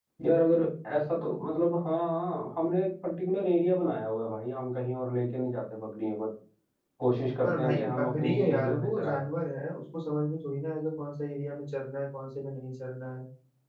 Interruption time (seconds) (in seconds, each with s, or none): 7.4 s